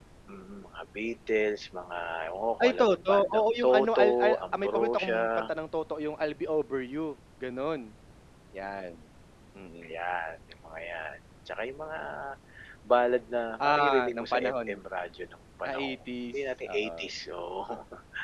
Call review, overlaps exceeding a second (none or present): present